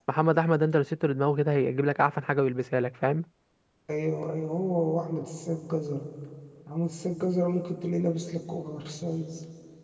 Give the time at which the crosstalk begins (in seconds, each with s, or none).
none